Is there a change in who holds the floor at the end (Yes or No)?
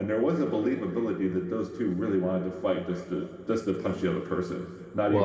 Yes